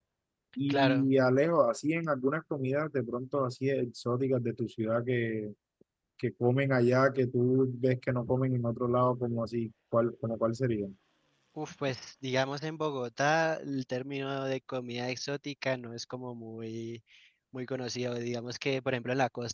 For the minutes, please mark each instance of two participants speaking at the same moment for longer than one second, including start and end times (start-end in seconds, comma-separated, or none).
none